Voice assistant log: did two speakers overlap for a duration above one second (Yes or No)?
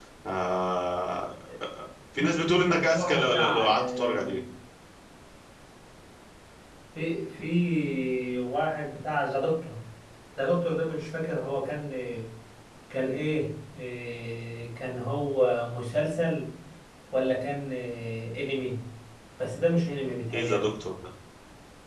Yes